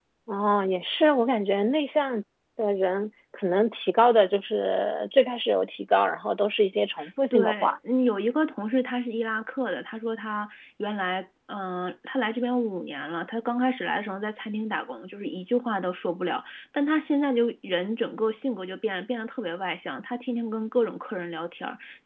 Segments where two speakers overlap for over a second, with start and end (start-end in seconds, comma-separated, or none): none